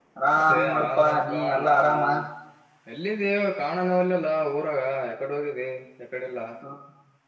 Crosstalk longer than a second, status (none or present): present